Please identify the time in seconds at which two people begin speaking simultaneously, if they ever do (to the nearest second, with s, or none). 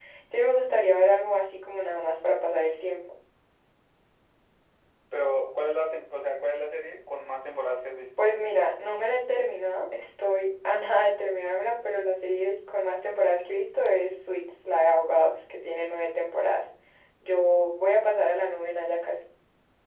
none